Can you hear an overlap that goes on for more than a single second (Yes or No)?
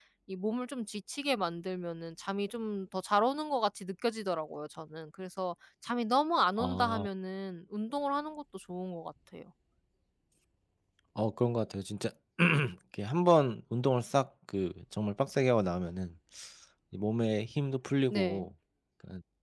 No